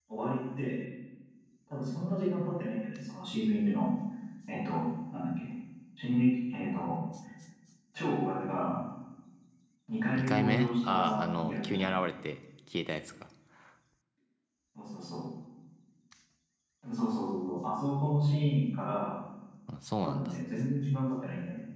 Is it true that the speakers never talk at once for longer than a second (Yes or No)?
No